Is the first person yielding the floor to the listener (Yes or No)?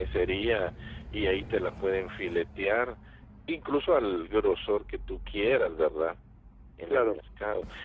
No